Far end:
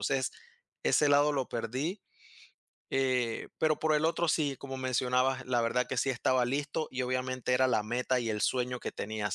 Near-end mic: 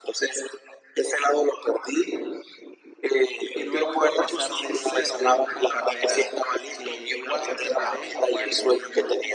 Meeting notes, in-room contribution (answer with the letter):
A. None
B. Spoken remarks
B